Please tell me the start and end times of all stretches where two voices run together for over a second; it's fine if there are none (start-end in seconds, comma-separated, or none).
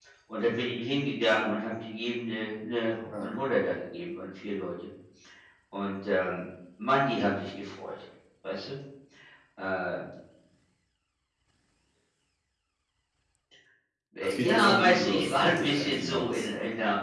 14.3-16.5